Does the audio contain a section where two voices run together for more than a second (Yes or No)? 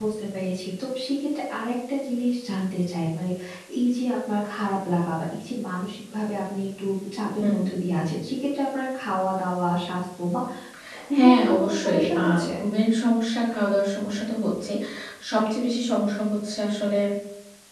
Yes